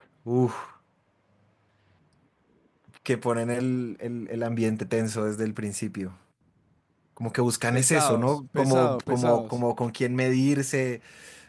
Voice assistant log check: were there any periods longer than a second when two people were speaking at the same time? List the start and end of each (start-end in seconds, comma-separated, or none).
7.7-9.6